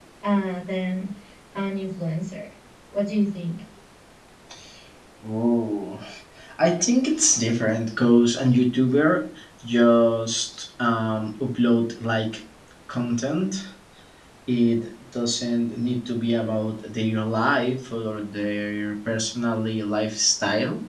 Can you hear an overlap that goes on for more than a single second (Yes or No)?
No